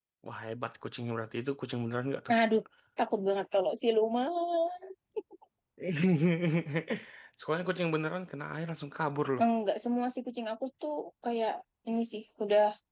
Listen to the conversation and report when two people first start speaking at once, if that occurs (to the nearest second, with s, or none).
none